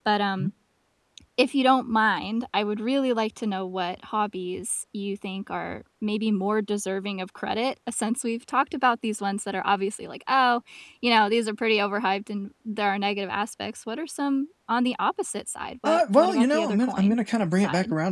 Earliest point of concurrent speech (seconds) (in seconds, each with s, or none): 15.8 s